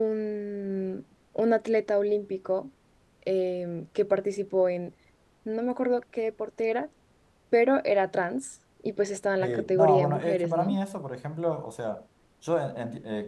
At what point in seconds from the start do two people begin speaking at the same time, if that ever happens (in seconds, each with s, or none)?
9.4 s